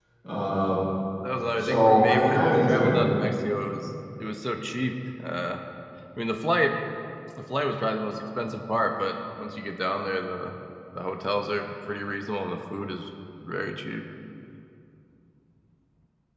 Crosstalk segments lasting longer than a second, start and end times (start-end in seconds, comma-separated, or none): 1.6-3.0